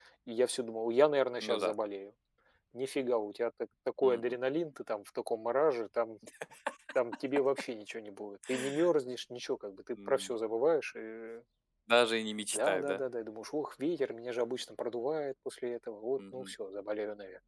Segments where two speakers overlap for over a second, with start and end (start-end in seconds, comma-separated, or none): none